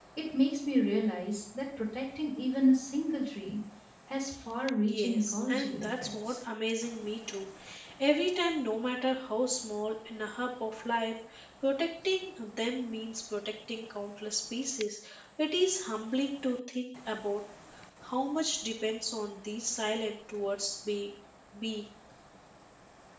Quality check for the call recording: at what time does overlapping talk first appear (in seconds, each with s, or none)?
4.9 s